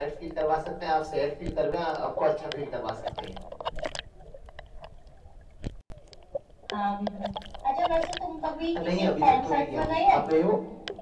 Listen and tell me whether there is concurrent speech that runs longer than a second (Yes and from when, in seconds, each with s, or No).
Yes, from 8.8 s